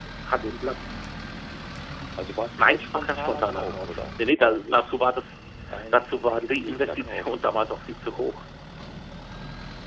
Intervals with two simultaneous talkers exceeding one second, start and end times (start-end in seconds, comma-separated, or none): 2.6-5.0, 5.9-7.3